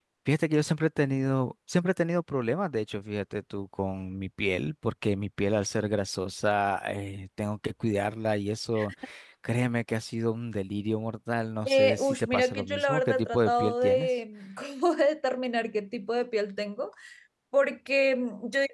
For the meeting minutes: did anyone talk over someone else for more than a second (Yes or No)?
Yes